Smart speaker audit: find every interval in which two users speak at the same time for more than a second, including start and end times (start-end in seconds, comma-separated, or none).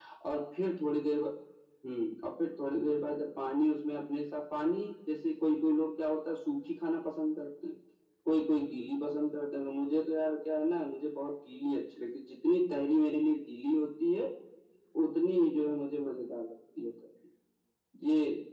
none